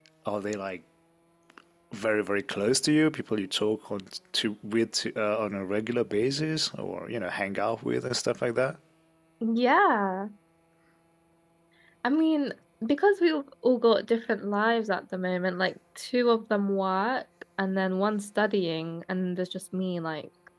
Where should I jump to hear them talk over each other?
none

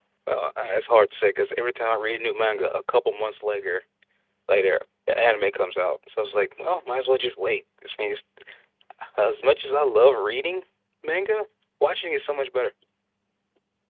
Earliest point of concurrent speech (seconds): none

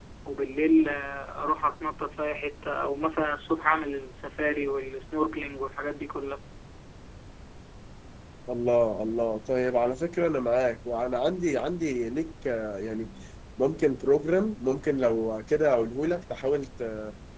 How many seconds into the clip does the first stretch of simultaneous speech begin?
none

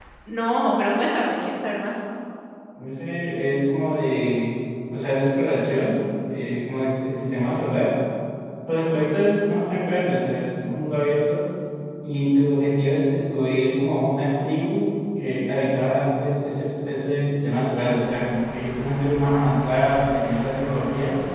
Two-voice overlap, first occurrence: none

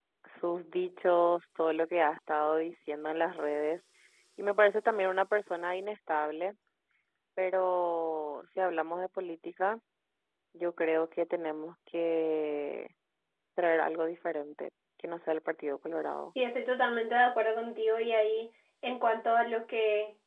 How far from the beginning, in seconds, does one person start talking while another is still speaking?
none

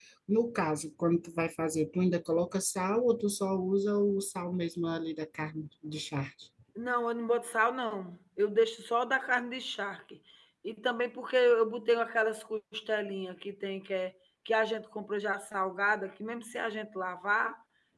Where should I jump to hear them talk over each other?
none

